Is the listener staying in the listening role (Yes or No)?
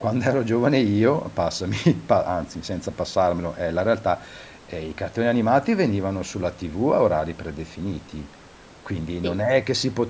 Yes